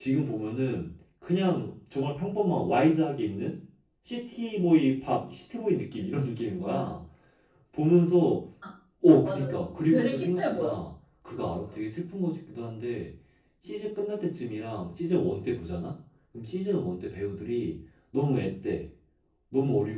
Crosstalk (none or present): present